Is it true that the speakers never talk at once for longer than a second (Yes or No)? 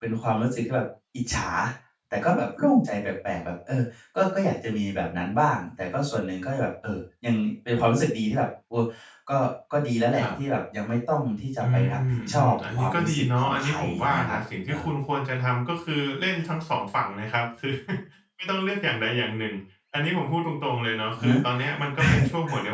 No